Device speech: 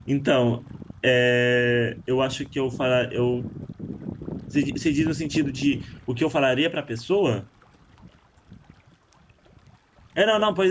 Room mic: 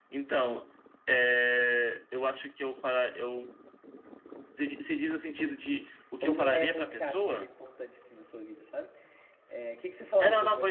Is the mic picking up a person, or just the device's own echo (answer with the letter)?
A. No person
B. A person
B